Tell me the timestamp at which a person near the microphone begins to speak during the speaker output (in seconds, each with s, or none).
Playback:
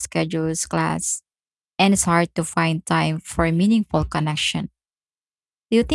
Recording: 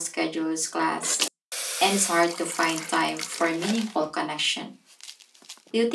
none